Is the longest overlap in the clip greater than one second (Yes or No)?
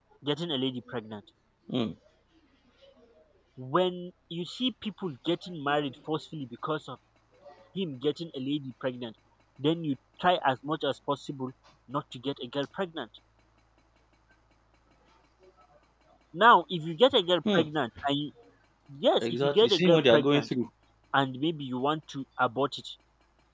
Yes